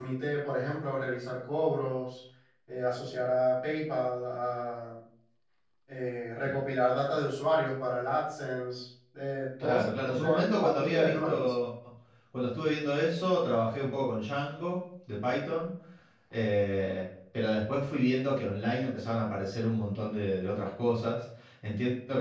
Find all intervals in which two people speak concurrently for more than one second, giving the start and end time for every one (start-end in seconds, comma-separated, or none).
9.6-11.5